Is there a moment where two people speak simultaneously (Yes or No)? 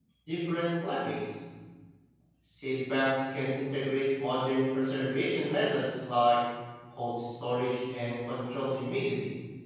No